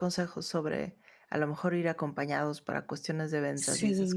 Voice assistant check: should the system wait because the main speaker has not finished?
Yes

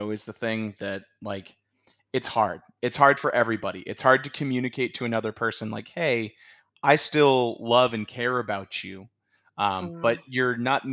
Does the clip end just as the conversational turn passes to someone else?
No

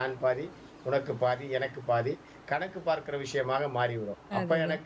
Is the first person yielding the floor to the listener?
No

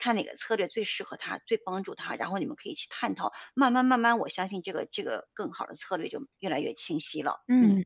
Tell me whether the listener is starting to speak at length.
Yes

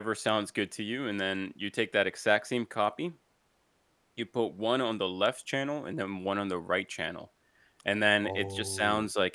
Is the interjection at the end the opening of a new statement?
No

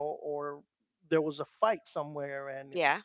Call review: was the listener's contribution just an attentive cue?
Yes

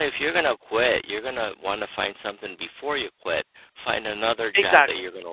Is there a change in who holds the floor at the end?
No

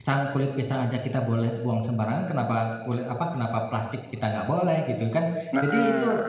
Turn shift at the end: No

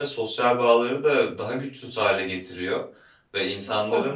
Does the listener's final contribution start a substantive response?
No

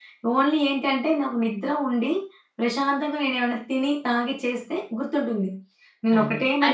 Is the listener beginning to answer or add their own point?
Yes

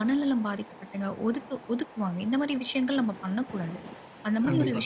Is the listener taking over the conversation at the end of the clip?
No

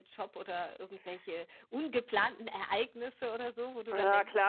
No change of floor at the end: No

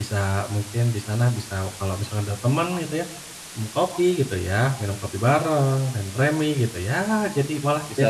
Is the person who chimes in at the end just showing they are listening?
No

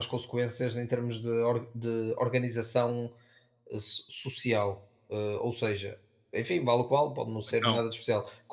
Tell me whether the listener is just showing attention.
Yes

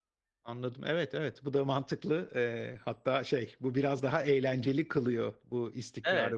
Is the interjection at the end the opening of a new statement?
No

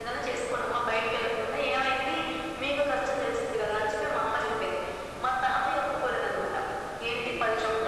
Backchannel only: Yes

